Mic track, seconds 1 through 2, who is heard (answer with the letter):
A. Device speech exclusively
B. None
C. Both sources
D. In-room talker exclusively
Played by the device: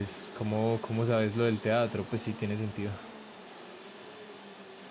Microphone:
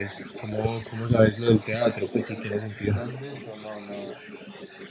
A